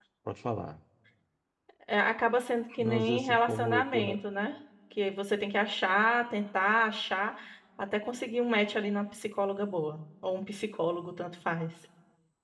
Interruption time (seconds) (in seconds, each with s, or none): 2.8 s